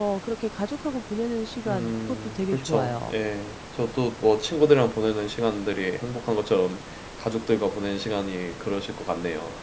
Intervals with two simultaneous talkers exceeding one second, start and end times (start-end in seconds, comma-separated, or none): 1.7-3.1